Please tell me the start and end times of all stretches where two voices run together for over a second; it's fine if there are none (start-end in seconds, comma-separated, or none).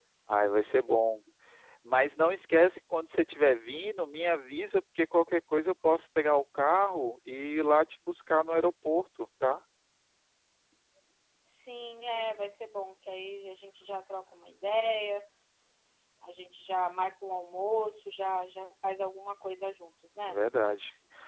none